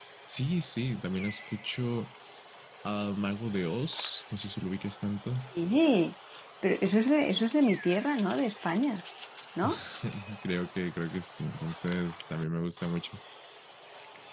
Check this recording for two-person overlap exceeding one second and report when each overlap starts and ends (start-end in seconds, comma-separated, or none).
none